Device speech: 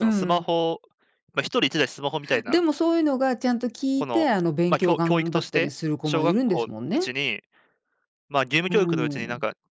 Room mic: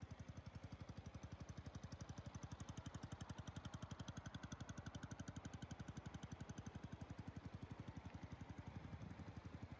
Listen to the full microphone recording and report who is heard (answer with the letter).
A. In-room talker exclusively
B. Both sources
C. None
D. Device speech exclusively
C